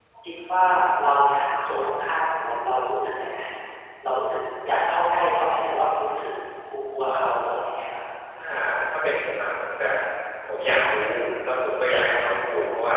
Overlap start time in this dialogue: none

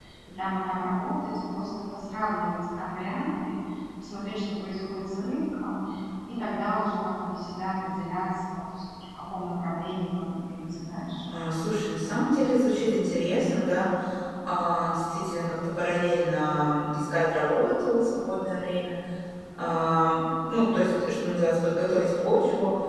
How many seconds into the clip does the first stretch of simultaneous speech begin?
none

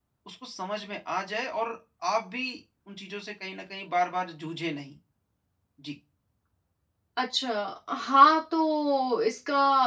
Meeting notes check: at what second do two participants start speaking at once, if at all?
none

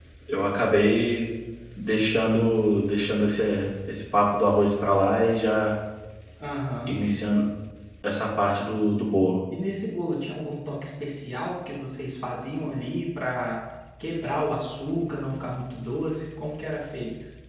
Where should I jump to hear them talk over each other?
none

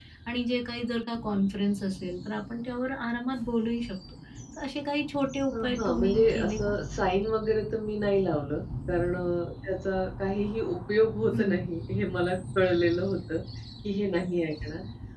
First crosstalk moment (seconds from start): 5.5 s

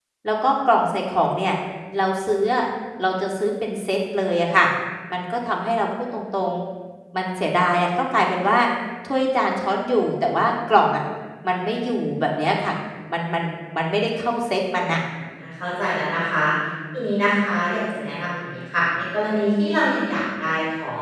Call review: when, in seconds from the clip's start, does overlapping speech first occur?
none

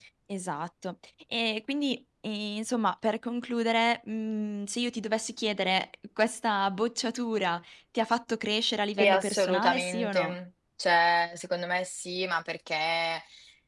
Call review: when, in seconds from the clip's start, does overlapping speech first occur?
9.0 s

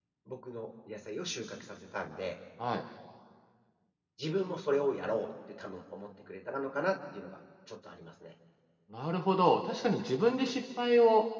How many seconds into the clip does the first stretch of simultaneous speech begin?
none

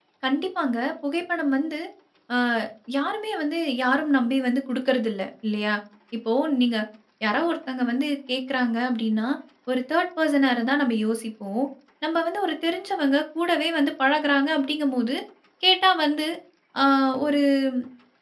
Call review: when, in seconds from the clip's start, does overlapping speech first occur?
none

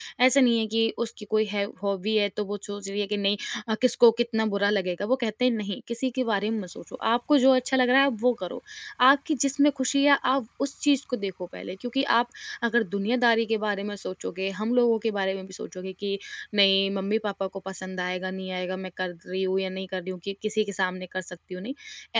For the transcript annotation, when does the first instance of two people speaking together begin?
none

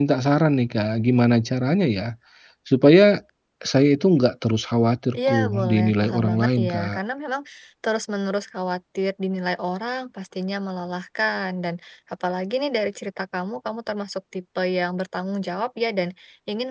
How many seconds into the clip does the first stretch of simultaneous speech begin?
5.1 s

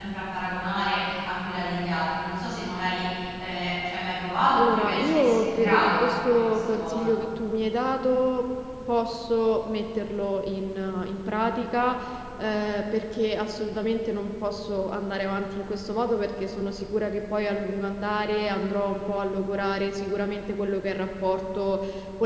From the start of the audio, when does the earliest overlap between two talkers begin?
4.5 s

